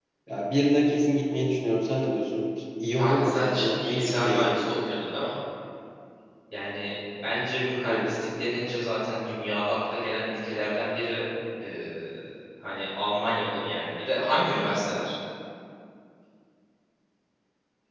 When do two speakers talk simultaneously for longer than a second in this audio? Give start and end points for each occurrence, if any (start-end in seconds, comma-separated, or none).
3.0-4.6